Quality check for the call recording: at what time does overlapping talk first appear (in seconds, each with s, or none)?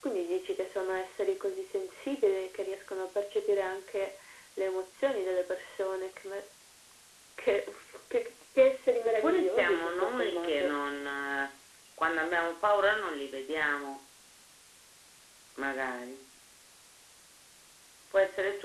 9.0 s